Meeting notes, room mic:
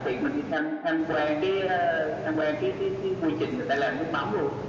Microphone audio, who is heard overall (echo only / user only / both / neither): echo only